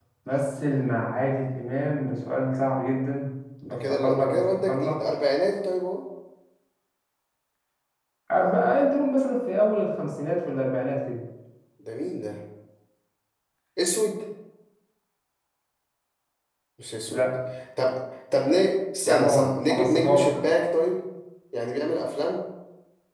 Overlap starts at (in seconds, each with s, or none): 3.6 s